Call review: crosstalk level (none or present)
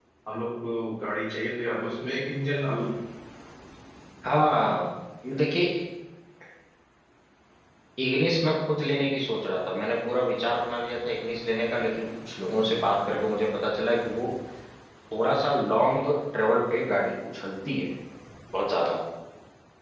none